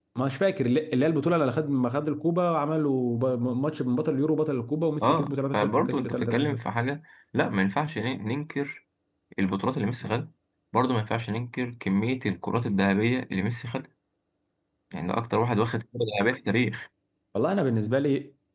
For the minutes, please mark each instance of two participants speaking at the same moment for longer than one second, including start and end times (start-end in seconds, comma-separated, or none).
5.0-6.7